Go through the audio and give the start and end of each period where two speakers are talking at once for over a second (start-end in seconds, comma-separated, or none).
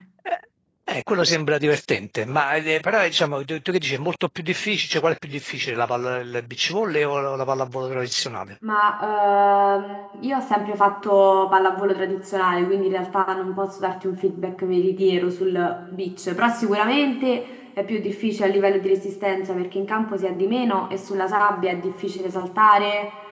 none